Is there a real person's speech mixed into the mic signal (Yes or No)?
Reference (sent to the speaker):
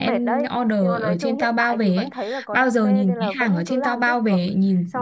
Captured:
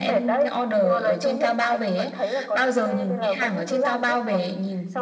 No